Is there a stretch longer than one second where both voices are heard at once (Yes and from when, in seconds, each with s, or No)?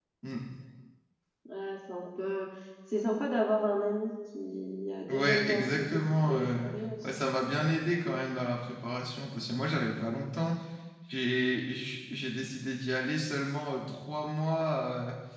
Yes, from 5.1 s